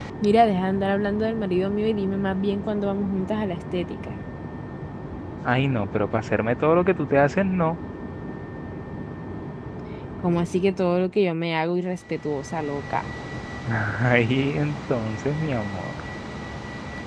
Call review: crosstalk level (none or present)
none